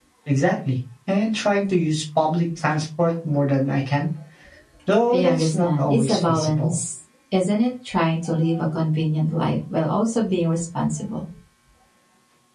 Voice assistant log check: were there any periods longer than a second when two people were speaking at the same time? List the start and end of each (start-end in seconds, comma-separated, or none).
5.1-6.8